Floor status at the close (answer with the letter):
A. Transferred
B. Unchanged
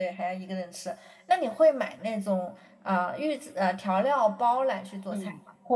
A